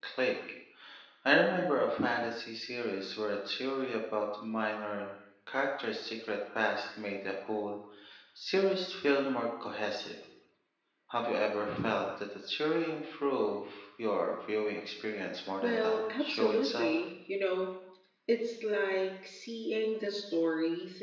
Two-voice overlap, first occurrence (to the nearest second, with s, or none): 16 s